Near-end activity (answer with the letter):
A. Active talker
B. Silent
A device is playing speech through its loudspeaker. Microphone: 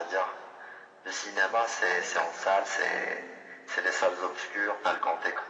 A